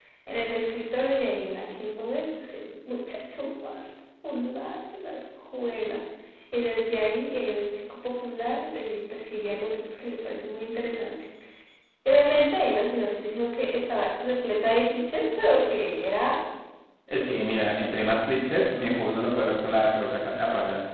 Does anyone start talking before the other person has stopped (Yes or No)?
No